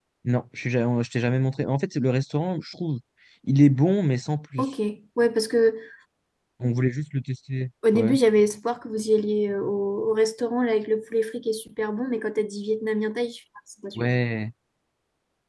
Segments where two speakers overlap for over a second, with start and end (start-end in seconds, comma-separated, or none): none